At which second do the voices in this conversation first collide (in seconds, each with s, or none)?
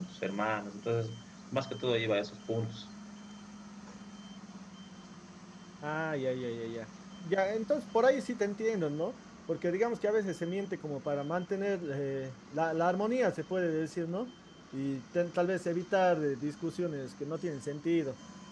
none